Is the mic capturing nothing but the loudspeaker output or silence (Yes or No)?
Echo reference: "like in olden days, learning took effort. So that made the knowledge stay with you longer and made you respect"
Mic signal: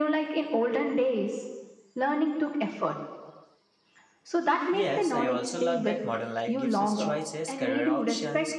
No